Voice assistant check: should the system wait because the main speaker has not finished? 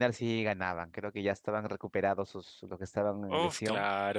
No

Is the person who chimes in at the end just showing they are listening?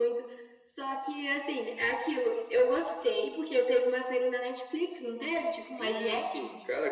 No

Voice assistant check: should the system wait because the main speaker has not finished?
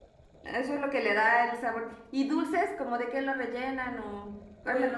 No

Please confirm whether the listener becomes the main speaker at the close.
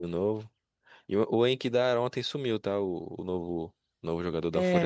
Yes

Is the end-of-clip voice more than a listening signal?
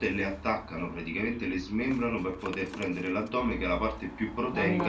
No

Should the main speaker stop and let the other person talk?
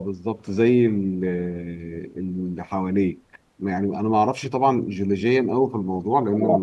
No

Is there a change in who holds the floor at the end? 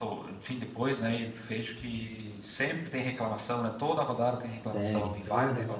Yes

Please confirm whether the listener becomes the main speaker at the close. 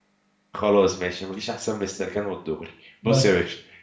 No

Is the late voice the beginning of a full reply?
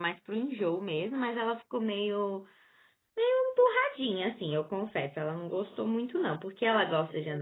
No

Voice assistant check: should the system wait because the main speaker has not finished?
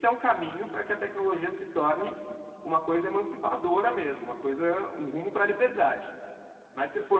Yes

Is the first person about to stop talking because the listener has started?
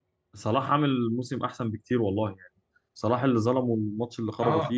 Yes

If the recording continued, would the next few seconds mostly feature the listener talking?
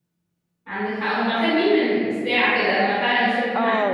Yes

